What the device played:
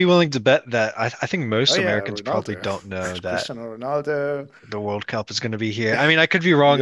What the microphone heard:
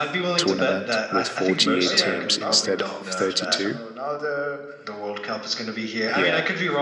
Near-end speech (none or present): present